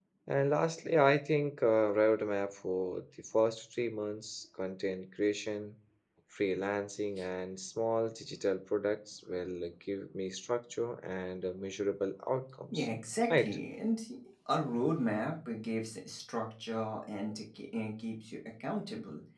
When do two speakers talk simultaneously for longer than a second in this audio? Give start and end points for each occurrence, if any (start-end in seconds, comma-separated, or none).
none